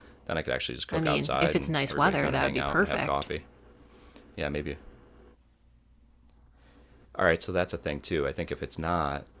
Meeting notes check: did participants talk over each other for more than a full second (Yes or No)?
Yes